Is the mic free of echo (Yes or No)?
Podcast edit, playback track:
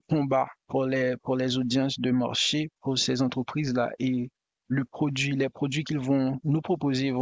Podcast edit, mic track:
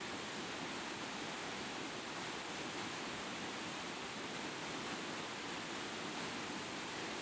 Yes